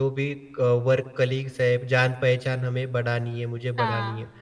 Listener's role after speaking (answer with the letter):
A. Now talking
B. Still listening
A